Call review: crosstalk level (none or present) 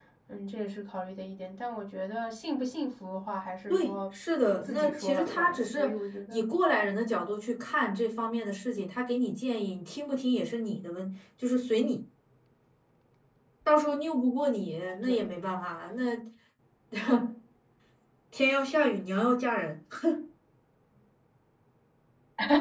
present